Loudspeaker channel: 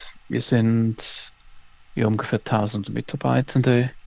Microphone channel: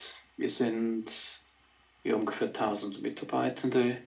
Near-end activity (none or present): none